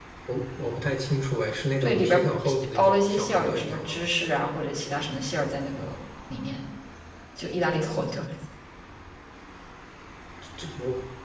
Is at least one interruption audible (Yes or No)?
Yes